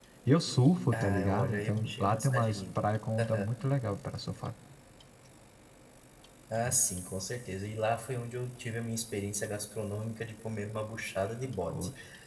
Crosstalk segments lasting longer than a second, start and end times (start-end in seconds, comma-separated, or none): 0.9-2.6